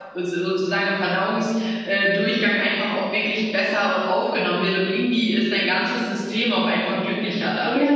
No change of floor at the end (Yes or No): No